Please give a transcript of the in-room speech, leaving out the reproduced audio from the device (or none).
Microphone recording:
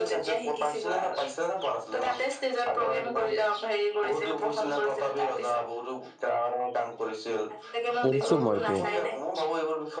পঢ়িছো মই এইটো